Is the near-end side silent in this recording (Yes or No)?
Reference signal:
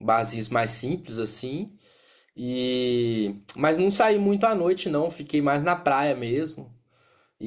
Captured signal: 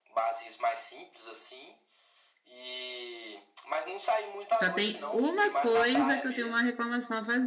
No